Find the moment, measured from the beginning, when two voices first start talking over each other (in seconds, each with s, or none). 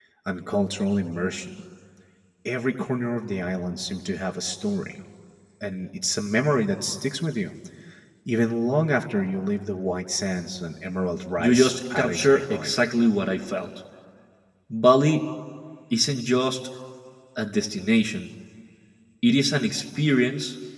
11.4 s